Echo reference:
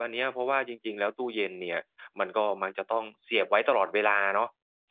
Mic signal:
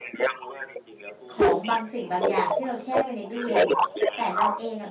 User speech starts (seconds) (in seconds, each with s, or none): 1.3 s